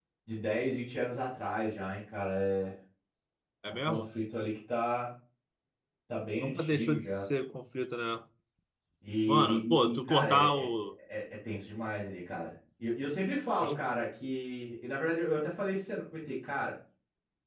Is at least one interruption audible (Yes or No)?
Yes